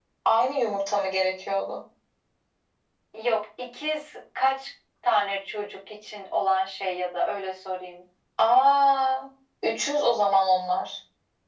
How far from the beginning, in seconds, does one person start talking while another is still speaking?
none

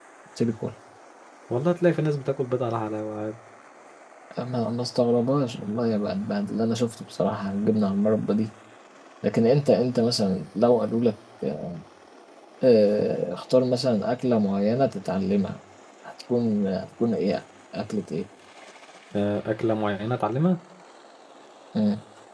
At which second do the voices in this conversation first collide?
none

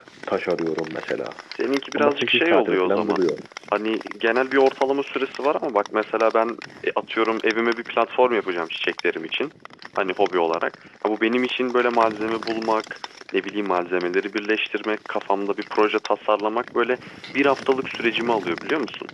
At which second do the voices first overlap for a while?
2.0 s

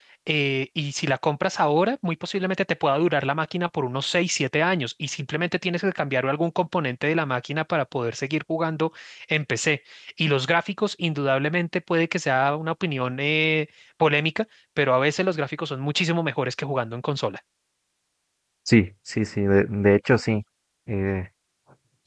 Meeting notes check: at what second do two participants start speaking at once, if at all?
none

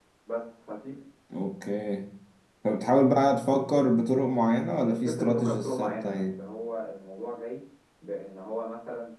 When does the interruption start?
4.8 s

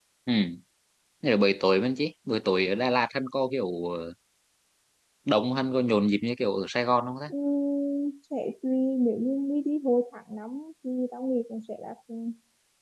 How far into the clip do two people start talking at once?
none

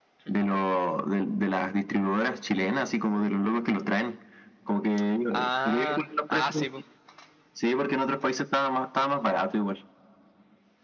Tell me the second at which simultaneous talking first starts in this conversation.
5.3 s

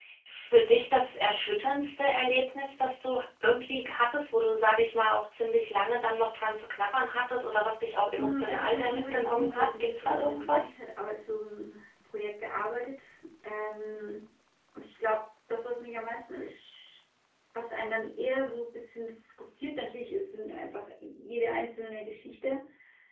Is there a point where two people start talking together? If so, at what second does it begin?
8.2 s

